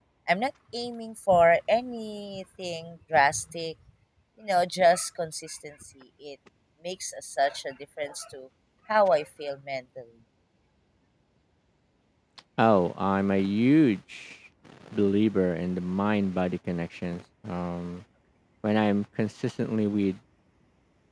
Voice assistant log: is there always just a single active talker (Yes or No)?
Yes